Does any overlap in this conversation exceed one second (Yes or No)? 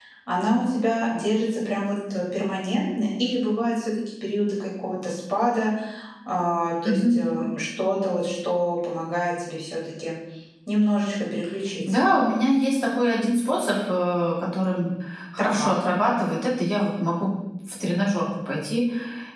No